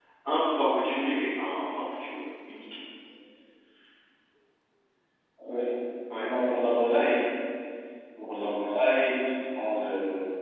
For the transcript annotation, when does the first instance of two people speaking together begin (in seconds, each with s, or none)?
none